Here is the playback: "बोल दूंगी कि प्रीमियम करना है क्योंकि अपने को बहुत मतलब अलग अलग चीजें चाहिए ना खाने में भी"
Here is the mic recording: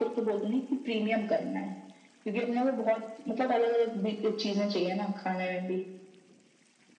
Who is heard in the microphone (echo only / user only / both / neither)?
echo only